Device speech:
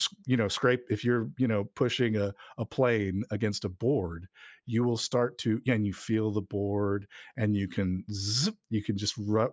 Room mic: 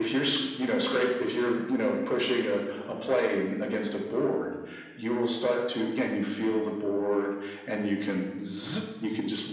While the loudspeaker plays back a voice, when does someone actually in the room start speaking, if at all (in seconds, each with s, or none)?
none